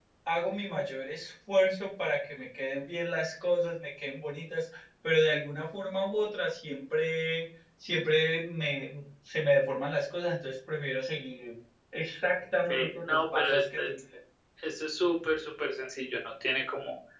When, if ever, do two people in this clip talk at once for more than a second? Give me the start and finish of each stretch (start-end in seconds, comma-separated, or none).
12.6-13.9